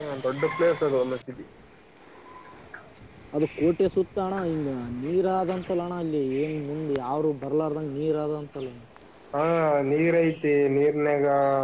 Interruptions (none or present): none